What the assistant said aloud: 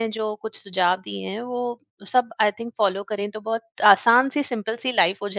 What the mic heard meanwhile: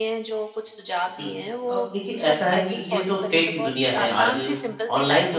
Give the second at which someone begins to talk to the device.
1.2 s

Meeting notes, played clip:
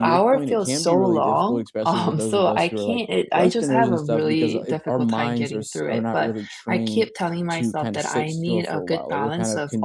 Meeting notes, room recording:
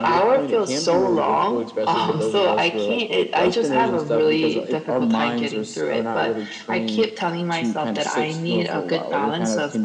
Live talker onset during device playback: none

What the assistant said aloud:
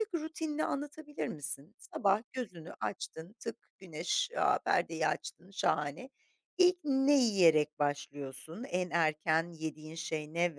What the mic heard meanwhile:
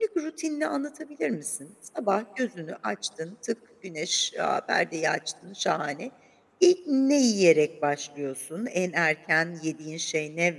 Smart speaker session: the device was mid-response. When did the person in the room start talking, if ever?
none

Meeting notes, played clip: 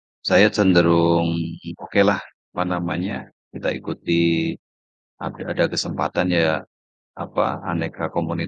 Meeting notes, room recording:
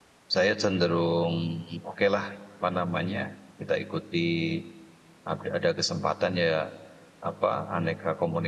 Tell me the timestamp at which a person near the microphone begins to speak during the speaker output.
none

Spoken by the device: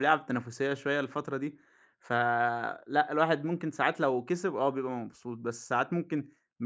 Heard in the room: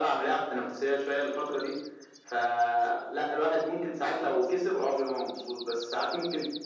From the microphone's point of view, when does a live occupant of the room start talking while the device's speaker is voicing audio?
none

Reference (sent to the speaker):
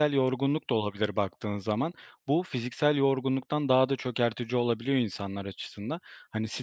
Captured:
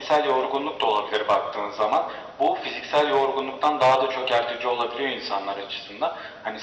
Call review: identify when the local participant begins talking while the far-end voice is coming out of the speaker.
none

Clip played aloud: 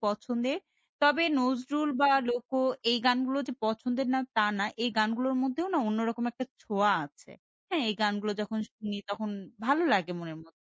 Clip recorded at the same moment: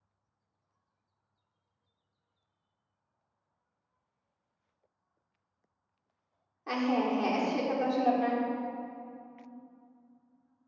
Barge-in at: 6.7 s

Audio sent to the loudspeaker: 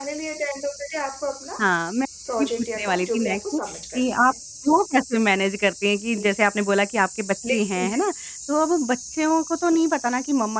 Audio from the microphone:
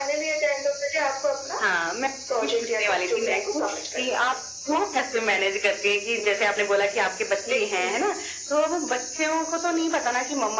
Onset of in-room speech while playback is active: none

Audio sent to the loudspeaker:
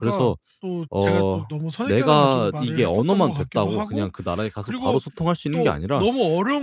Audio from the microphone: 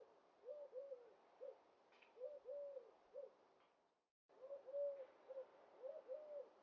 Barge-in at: none

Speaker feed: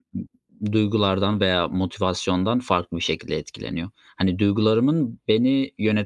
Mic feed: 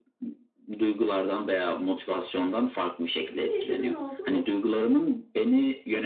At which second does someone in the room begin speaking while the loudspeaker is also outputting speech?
3.3 s

